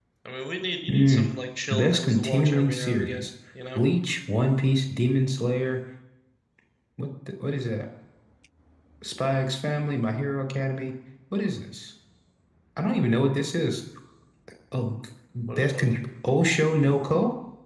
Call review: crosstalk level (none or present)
present